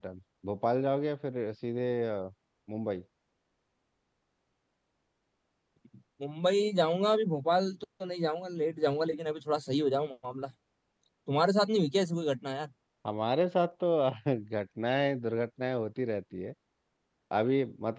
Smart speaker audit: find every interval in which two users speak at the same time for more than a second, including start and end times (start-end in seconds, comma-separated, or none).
none